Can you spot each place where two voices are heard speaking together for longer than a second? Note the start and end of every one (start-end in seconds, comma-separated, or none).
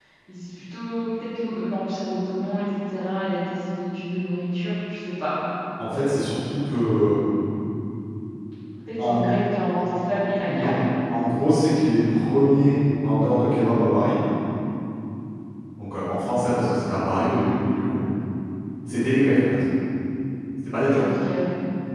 none